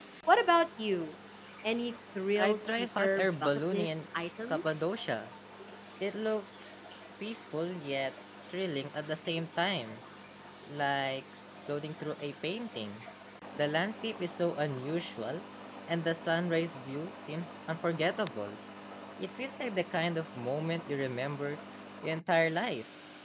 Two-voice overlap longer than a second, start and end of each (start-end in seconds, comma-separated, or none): 2.4-4.0